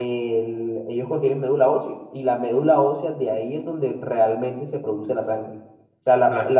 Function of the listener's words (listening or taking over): listening